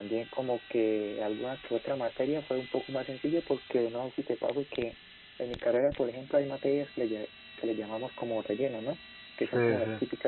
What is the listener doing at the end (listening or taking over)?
listening